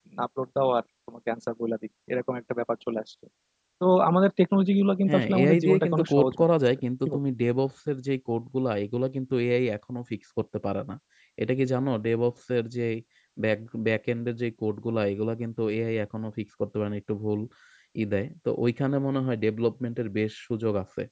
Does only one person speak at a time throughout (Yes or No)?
No